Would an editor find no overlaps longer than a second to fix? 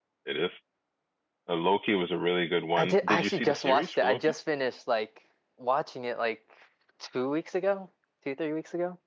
No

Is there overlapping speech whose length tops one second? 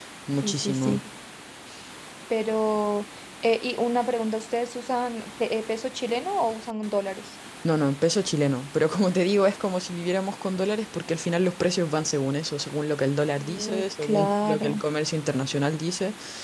Yes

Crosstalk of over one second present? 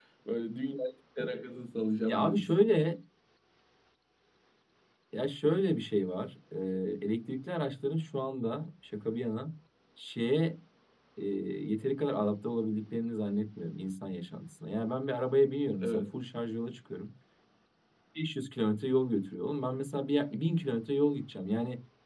No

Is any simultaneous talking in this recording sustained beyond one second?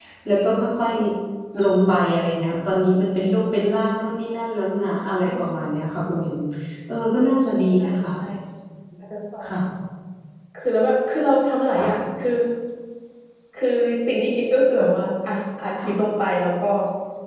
No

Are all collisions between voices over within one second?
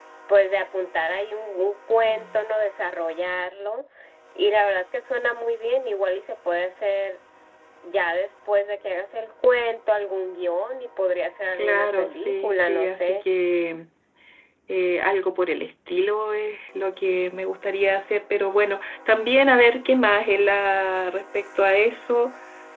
No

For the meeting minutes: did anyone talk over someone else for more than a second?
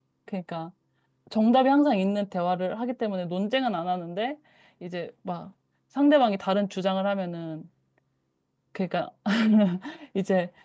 No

